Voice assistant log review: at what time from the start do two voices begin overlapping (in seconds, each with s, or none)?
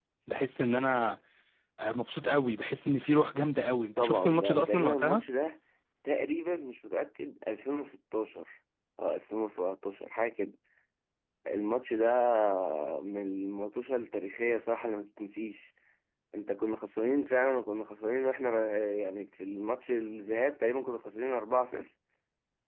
4.0 s